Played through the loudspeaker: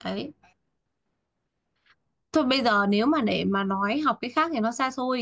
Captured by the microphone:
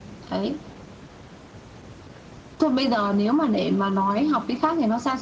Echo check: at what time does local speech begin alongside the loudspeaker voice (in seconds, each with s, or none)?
none